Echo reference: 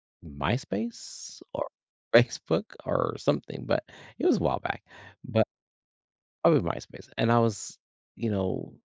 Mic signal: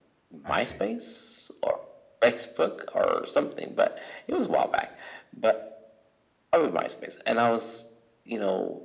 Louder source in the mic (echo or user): echo